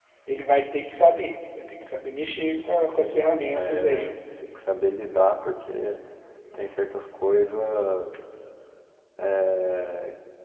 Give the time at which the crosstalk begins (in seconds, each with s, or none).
2.9 s